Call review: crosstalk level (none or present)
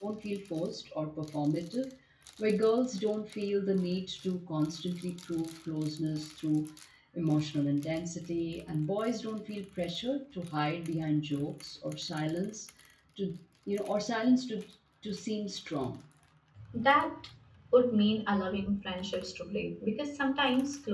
none